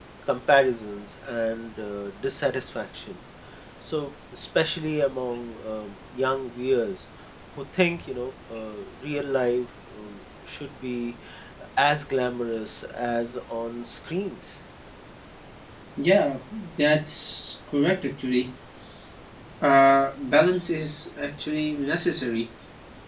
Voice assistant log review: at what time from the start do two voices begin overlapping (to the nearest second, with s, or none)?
none